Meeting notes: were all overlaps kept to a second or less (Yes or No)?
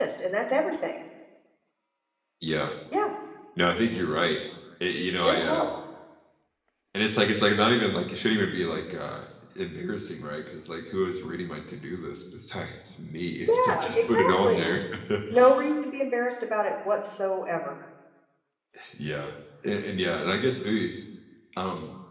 No